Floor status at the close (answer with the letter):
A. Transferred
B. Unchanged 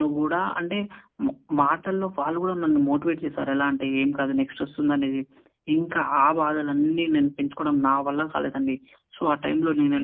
B